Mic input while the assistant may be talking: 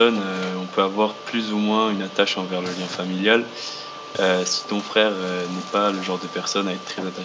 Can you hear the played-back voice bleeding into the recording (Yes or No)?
No